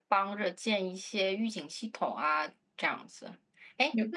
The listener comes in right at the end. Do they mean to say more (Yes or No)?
No